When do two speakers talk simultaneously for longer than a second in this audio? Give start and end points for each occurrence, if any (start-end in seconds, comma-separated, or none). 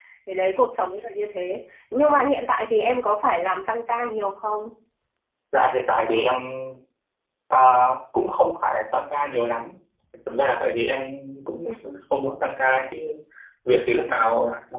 none